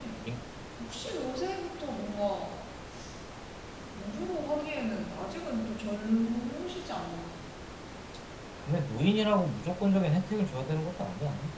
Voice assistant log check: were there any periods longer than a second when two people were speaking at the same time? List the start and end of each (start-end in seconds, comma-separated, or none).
none